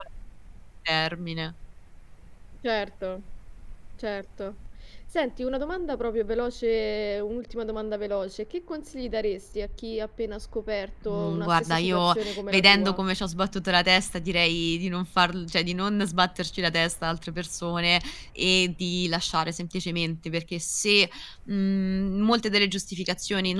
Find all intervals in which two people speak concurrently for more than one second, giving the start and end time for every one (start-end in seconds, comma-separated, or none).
11.1-13.0